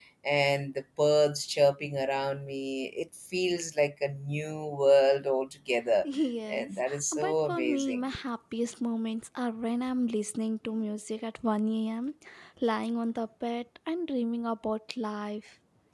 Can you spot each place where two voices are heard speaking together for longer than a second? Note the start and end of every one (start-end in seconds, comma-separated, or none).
6.5-8.0